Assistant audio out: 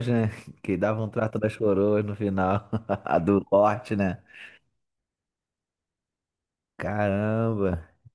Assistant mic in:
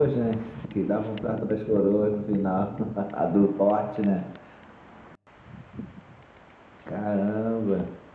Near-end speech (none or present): none